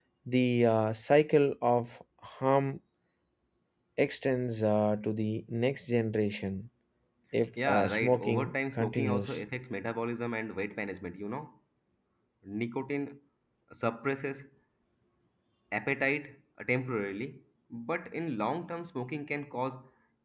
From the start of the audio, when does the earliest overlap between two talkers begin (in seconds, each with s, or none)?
7.7 s